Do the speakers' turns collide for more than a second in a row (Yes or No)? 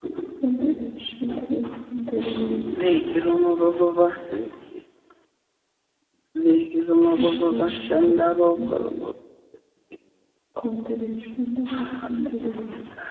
Yes